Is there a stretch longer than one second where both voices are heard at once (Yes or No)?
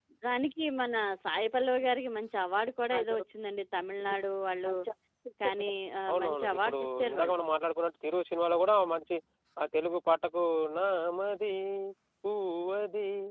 Yes